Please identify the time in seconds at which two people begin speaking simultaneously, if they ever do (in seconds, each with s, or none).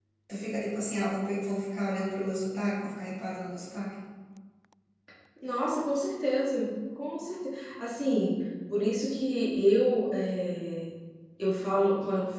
none